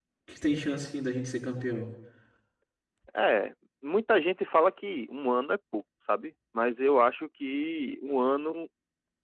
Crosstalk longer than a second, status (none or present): none